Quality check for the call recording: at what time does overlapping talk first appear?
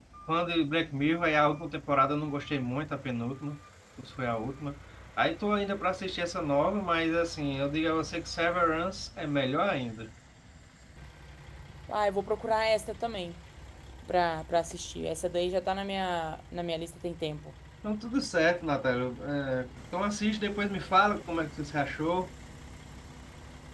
none

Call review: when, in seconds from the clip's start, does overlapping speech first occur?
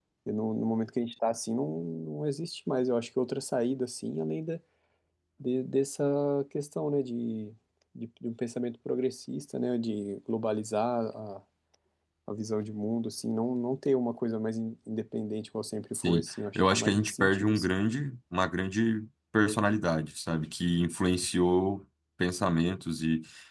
15.9 s

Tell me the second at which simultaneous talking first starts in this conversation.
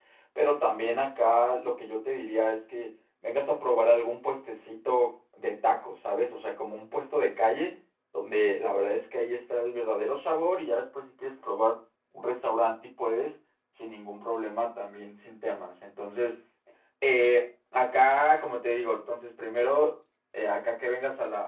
none

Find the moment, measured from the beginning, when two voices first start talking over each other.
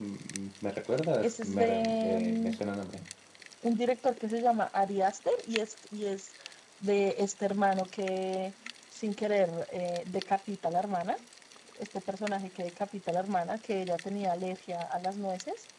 1.2 s

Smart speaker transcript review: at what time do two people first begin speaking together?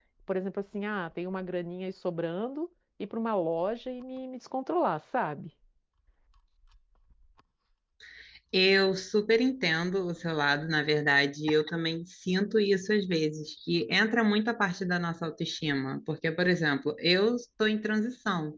none

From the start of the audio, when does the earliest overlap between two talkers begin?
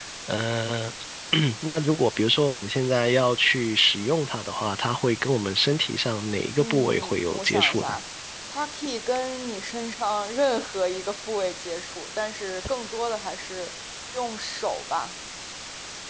6.6 s

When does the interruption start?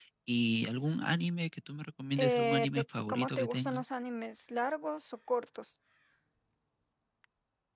2.2 s

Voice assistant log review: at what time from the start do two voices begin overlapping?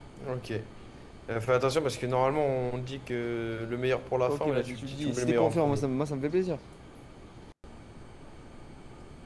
4.3 s

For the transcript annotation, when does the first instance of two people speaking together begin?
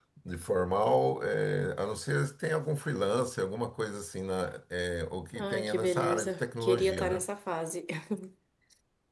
5.3 s

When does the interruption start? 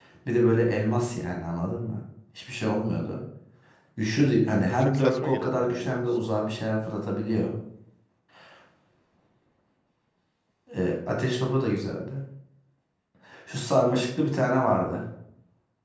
4.5 s

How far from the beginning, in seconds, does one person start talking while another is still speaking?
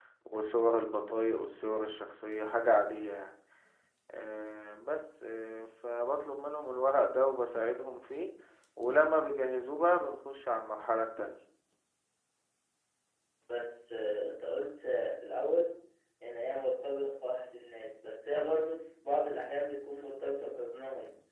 none

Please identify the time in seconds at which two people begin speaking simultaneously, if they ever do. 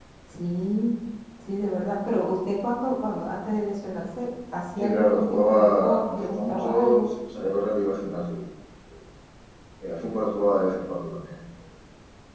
4.8 s

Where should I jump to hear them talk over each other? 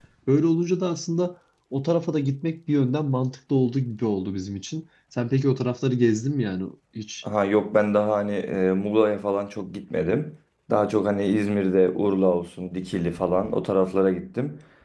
none

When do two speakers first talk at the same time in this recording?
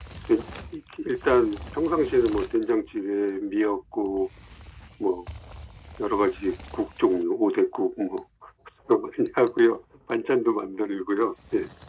none

